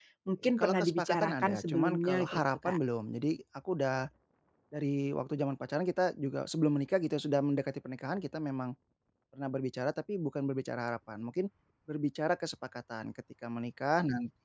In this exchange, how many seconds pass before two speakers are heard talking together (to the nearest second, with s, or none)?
1 s